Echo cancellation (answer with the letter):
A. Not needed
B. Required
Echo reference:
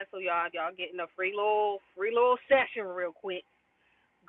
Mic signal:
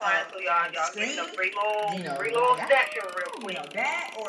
B